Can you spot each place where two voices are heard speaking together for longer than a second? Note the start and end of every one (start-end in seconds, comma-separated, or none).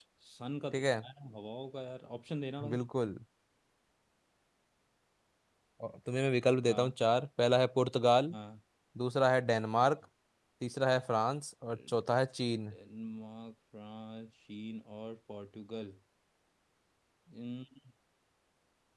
none